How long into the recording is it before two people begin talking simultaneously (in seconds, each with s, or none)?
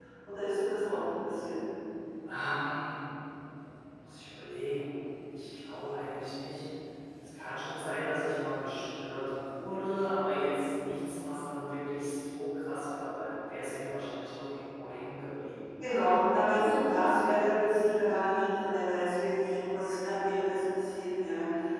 none